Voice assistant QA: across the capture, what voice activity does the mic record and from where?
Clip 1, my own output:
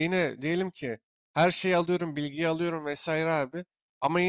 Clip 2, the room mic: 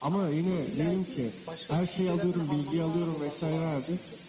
both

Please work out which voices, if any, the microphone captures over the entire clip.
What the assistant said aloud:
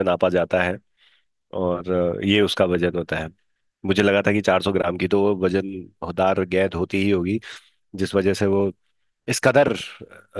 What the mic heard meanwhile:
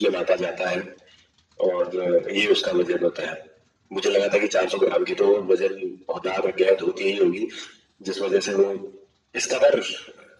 echo only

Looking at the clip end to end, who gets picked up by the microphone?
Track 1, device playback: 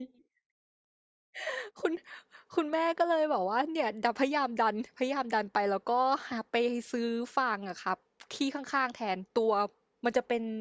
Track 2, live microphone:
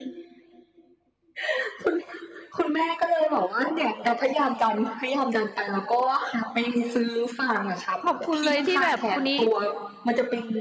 both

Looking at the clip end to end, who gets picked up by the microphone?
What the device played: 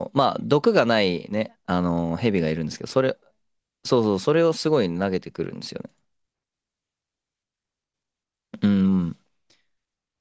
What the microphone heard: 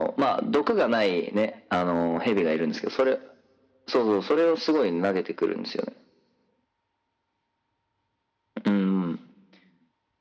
echo only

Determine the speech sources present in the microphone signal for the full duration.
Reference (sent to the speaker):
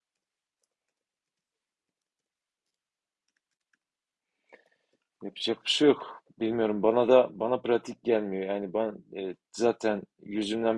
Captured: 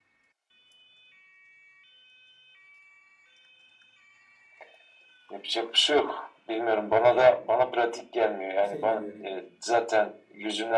both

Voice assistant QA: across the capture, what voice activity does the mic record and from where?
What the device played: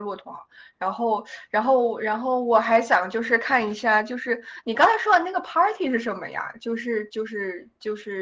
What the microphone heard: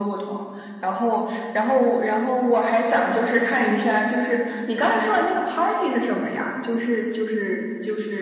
echo only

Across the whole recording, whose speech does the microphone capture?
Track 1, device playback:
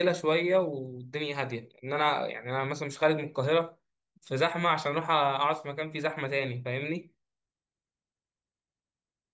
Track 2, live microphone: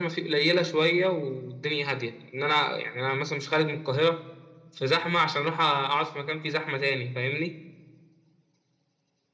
echo only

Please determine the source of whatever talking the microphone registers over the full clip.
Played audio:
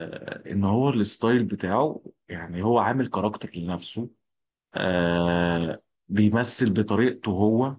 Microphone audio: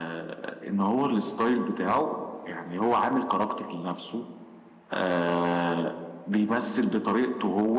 echo only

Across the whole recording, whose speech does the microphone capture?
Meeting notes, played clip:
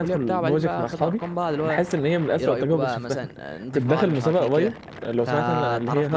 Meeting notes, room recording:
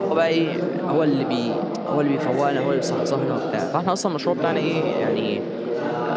both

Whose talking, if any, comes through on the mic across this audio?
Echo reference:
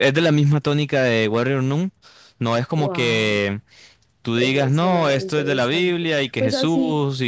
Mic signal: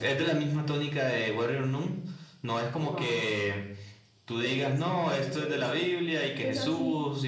echo only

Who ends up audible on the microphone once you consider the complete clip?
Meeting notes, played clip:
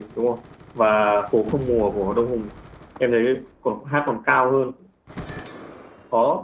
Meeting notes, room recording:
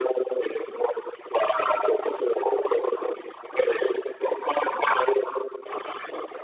echo only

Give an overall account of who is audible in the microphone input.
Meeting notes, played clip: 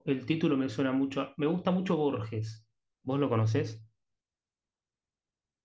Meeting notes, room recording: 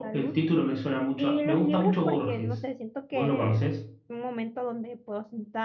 both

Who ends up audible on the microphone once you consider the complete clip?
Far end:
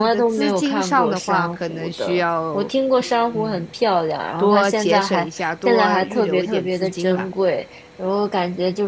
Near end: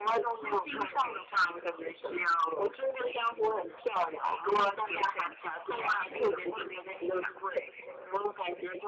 echo only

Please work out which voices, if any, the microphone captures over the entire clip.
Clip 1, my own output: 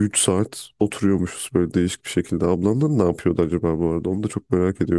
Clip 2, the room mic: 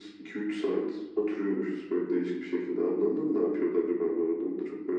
echo only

